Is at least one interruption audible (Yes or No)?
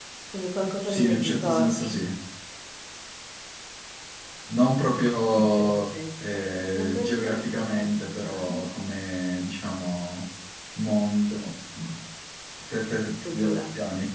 Yes